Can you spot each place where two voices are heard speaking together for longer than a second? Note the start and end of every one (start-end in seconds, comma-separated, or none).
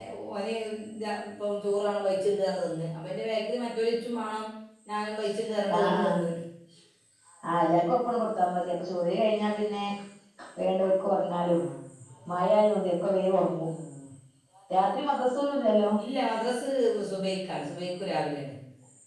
none